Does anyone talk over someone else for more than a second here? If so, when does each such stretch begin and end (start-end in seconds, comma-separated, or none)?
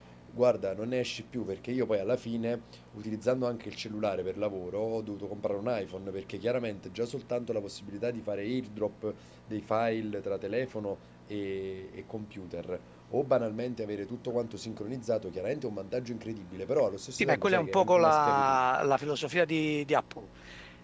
17.2-18.6